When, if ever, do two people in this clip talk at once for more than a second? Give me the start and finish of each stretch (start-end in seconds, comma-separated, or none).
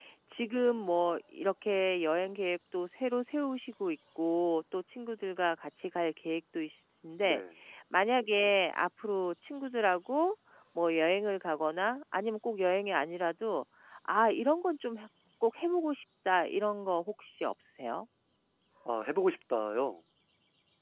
none